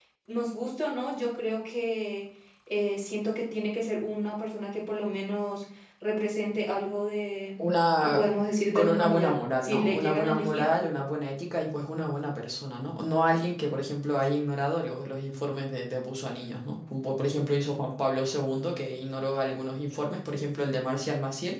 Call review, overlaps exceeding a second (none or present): present